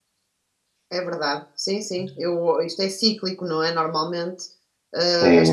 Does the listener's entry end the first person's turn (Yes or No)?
Yes